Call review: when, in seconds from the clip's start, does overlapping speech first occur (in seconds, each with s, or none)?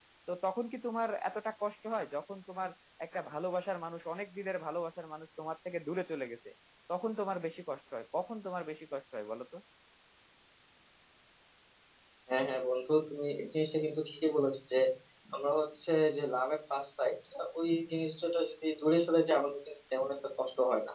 none